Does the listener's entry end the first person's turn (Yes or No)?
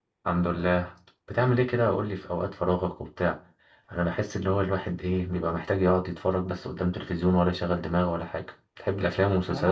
Yes